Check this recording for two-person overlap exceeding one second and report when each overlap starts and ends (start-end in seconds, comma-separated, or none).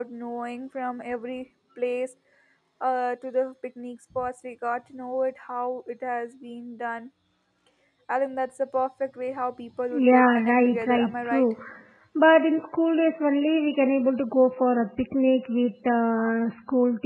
9.9-11.5